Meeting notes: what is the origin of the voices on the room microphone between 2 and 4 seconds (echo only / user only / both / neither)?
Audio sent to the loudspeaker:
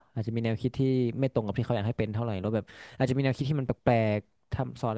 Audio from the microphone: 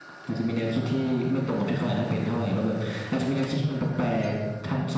echo only